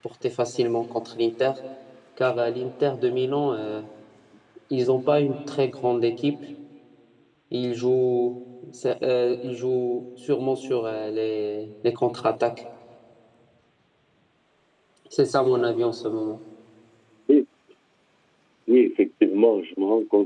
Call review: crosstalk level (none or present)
none